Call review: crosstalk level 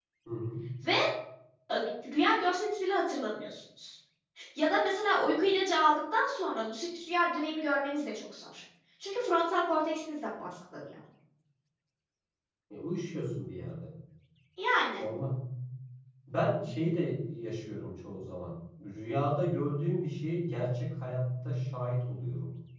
none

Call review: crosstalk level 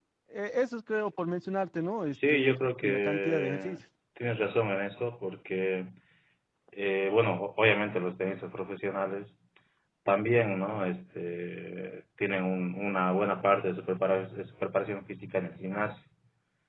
present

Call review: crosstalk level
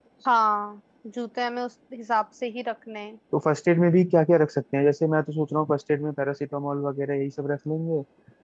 none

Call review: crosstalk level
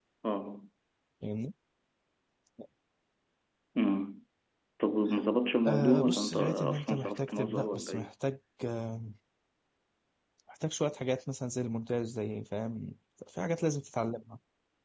present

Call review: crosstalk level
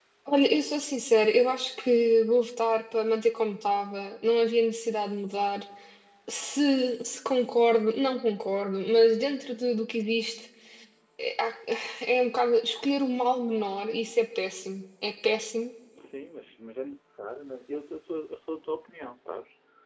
none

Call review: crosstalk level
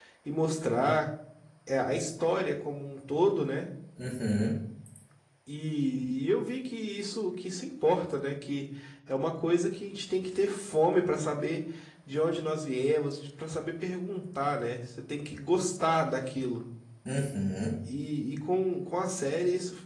none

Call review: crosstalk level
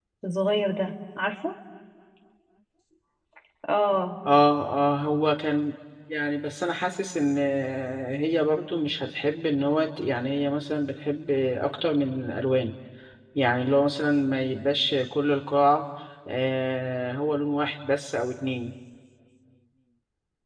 none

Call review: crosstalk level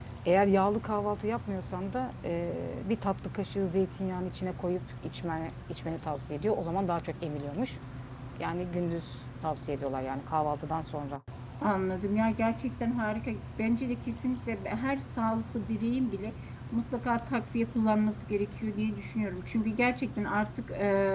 none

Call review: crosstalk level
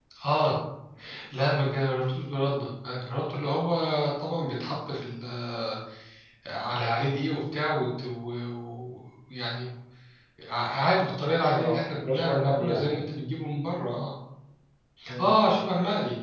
present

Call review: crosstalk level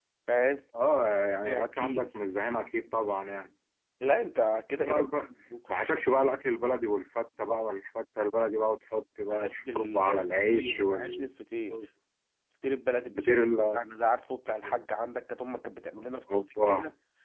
present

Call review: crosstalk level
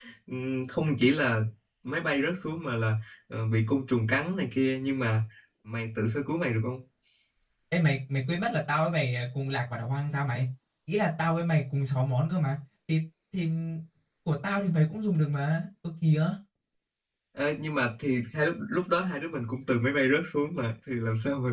none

